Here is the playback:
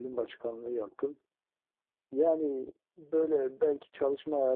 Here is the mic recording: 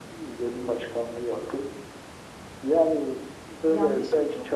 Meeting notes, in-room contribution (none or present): present